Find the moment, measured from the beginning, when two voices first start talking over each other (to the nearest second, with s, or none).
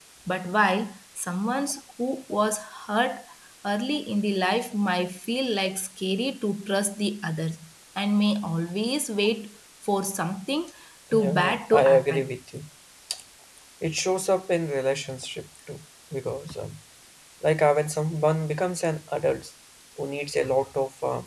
11 s